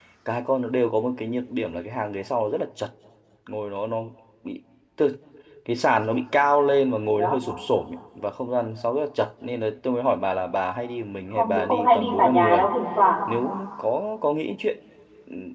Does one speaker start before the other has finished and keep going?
Yes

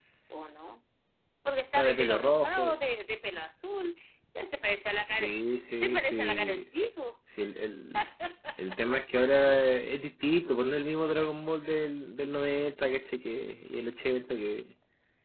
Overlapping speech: Yes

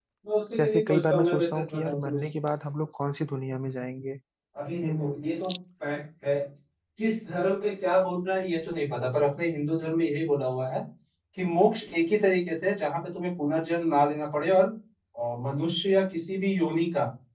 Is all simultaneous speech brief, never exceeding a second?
No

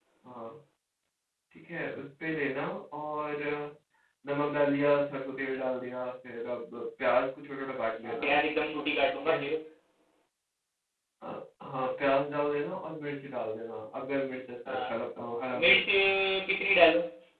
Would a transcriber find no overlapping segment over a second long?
Yes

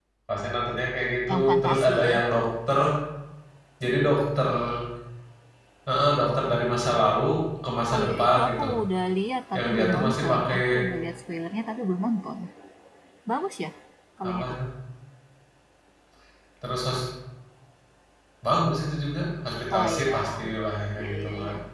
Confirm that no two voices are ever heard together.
No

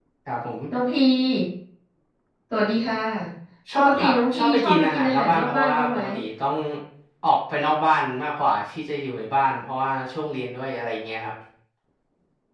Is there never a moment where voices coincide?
No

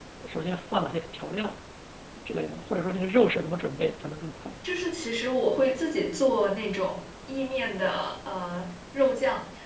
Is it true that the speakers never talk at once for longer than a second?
Yes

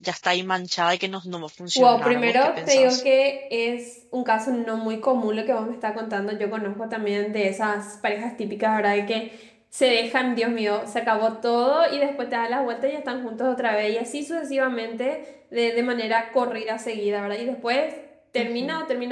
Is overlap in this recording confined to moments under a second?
No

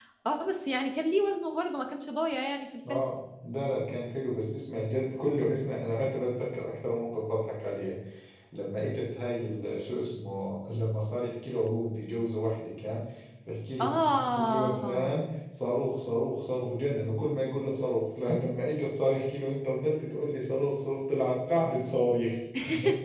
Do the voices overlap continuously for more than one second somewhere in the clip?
Yes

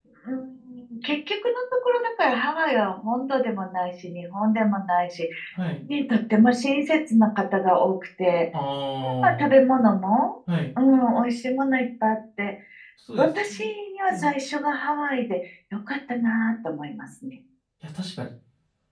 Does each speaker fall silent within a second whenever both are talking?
Yes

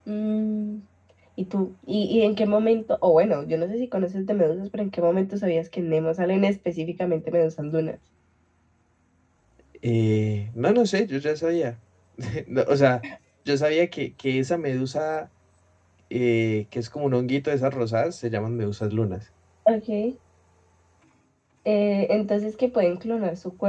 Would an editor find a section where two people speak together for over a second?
No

